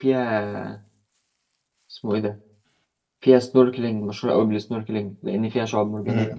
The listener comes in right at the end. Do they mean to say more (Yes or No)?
Yes